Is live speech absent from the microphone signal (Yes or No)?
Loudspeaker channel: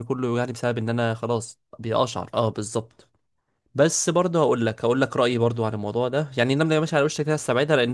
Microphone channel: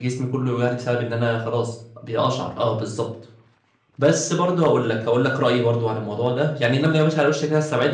Yes